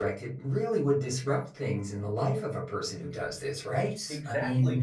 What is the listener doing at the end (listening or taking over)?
taking over